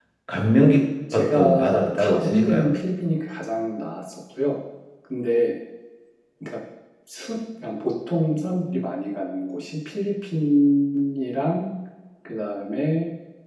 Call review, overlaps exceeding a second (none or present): present